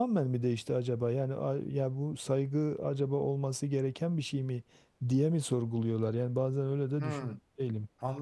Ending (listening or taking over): taking over